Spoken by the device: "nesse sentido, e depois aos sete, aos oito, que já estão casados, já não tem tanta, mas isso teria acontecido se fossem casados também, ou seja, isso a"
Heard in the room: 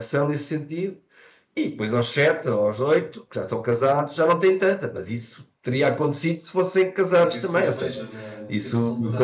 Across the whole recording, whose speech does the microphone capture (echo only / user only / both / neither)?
both